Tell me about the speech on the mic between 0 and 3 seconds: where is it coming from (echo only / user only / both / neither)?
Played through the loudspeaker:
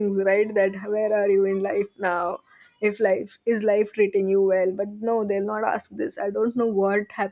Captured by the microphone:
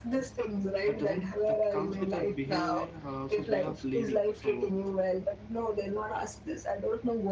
both